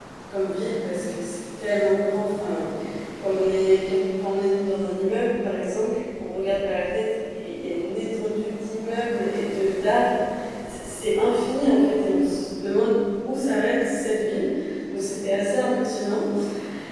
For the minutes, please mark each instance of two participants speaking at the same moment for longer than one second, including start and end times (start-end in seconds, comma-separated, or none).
none